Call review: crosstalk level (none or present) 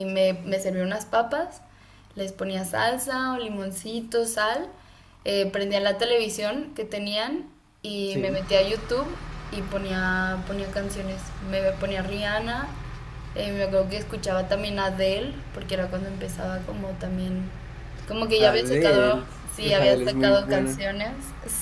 present